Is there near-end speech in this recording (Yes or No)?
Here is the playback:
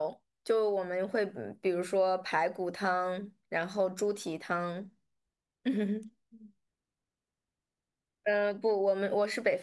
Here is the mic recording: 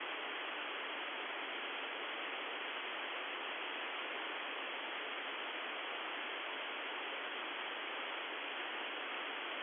No